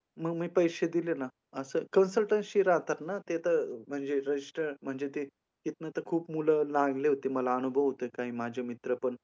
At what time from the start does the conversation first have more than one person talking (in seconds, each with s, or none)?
none